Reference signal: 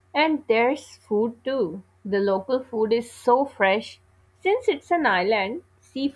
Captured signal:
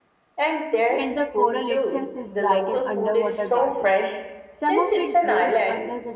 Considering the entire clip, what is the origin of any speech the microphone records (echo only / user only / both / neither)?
both